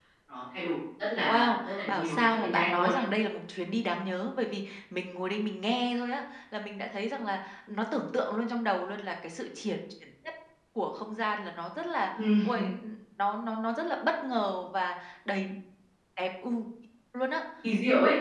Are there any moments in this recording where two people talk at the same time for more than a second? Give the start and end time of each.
1.3-3.0

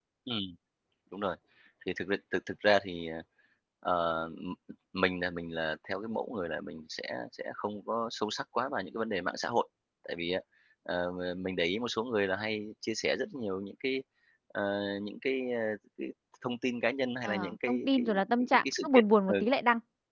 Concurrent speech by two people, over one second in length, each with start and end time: 17.2-19.3

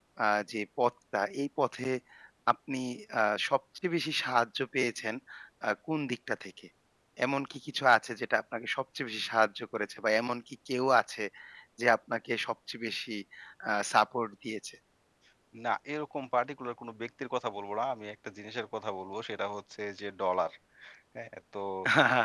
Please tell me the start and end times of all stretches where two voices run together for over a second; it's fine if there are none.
none

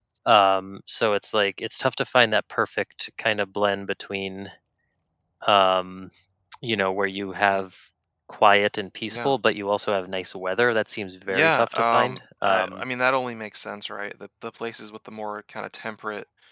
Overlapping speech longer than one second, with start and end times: 11.3-12.8

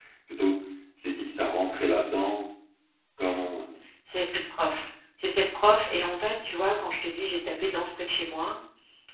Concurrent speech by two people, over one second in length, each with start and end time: none

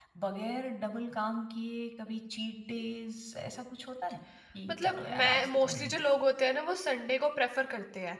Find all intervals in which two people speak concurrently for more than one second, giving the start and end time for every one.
4.7-6.0

